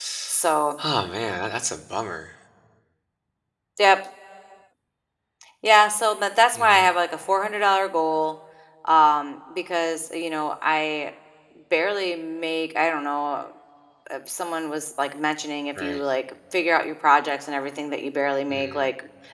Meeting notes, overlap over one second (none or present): none